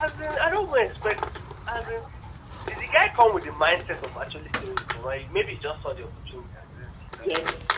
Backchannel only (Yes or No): No